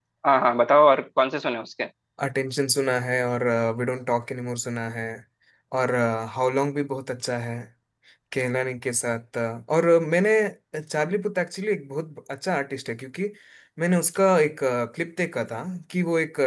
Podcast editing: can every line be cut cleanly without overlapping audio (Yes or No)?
Yes